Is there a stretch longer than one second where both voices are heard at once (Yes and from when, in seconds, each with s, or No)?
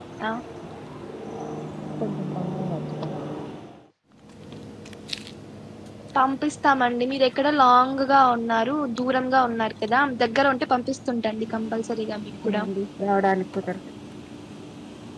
Yes, from 11.3 s